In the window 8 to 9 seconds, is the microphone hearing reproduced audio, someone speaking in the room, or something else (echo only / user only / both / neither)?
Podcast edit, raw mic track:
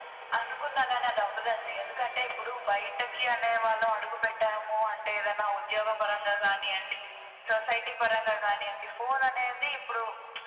echo only